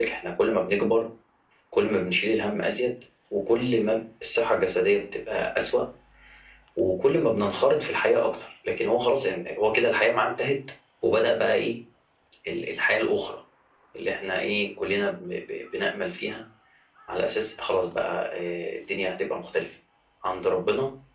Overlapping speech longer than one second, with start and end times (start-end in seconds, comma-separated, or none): none